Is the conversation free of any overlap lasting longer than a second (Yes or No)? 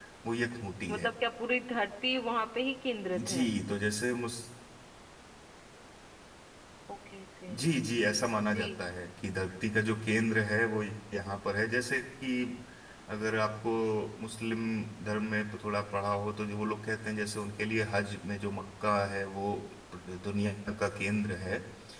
Yes